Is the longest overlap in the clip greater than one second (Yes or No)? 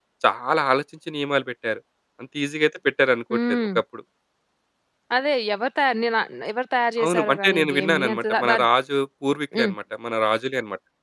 Yes